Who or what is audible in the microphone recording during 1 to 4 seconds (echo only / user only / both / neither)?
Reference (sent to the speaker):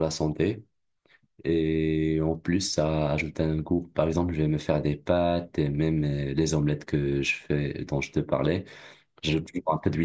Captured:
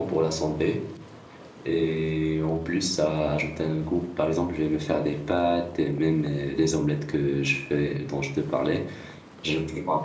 echo only